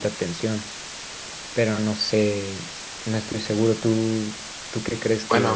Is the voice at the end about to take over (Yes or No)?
Yes